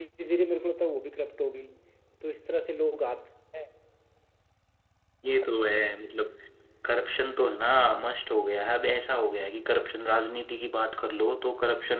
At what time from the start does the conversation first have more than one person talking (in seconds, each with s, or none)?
none